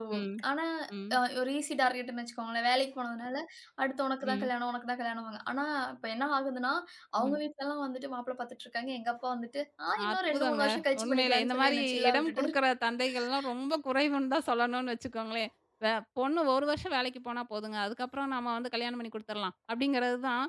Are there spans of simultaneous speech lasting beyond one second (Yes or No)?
Yes